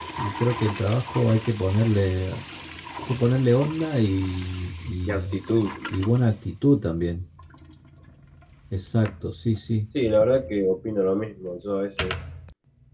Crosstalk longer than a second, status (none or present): none